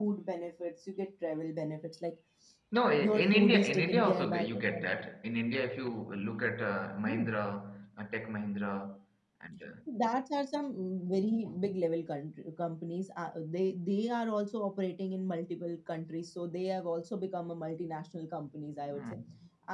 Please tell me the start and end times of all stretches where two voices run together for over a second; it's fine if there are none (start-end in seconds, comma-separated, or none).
3.0-4.8